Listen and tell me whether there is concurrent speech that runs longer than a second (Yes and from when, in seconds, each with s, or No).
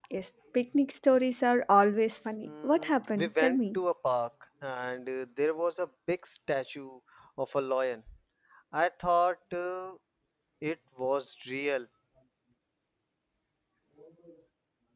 Yes, from 2.4 s